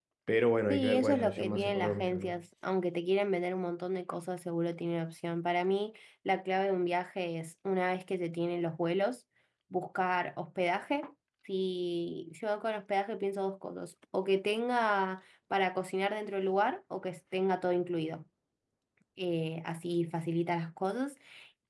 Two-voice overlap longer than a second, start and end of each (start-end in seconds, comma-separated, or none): 0.7-2.4